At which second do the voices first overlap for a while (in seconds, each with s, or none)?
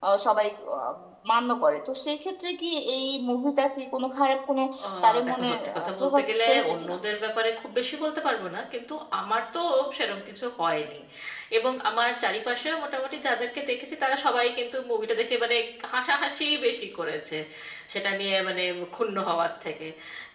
5.0 s